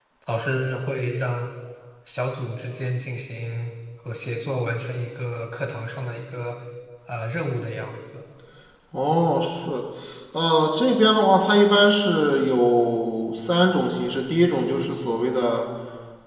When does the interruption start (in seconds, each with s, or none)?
none